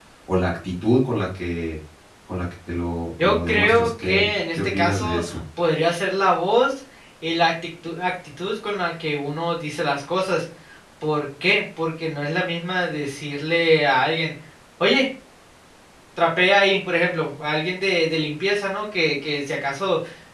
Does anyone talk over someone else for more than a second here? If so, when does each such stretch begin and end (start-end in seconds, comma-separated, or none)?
3.2-5.4